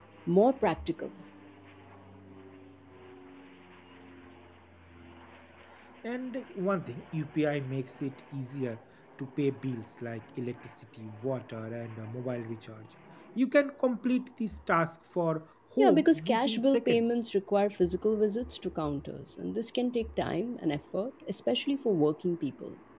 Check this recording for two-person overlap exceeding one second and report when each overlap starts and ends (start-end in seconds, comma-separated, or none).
15.8-17.0